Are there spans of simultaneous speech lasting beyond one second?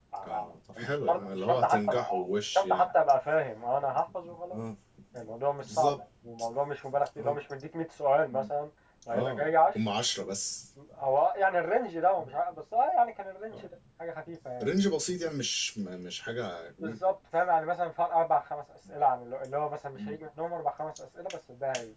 Yes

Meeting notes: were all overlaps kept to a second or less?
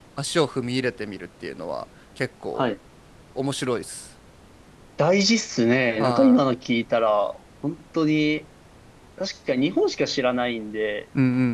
Yes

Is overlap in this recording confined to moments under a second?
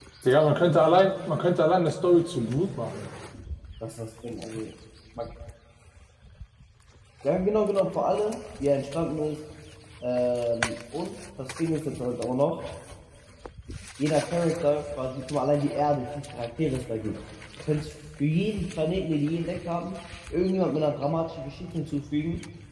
Yes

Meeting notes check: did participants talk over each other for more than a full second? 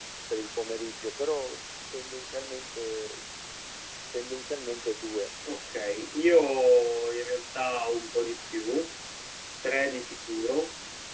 No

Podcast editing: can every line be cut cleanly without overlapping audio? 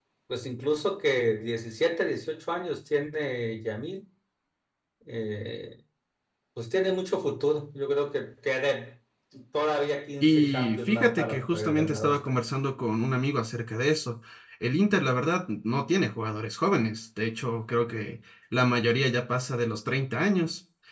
No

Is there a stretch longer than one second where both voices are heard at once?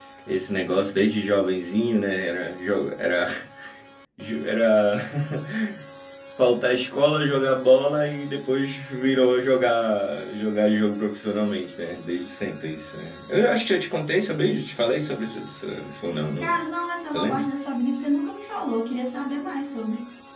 No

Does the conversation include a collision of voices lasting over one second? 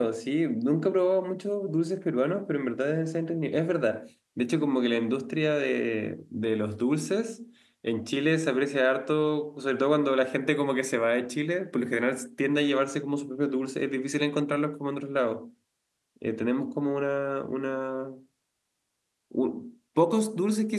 No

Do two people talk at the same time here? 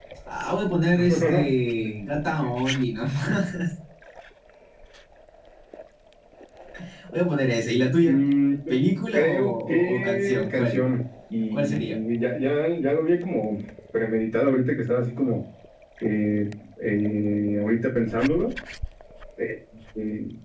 Yes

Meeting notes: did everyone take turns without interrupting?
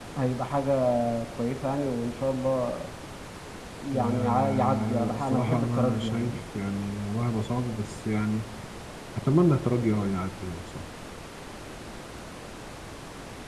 No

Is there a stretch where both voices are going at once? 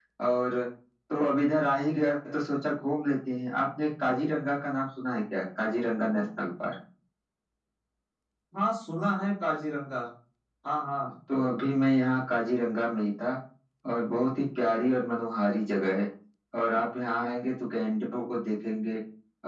No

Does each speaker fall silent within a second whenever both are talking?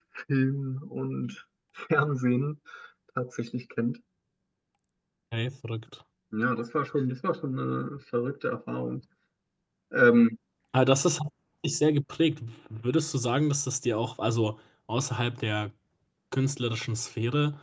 Yes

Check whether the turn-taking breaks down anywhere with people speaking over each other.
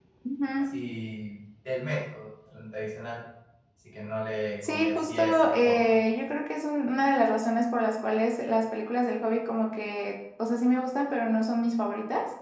Yes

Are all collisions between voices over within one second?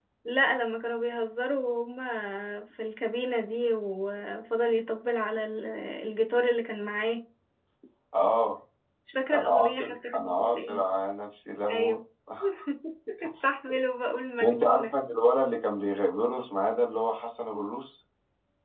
No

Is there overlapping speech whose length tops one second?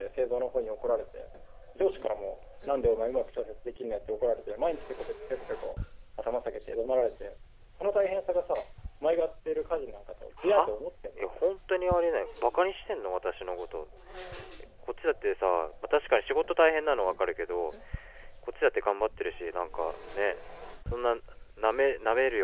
No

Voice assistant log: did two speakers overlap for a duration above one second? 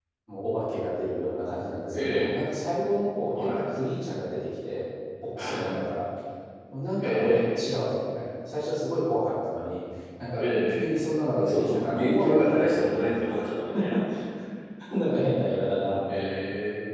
Yes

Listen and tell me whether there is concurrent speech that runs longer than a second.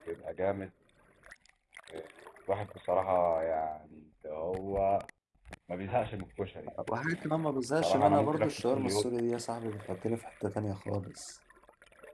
Yes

